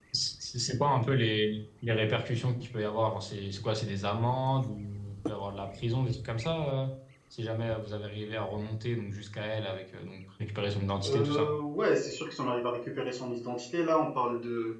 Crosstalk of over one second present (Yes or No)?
No